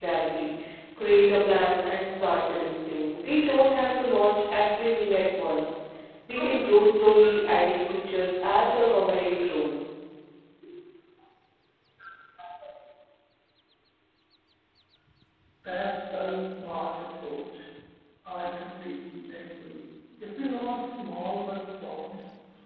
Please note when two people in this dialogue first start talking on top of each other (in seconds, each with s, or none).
none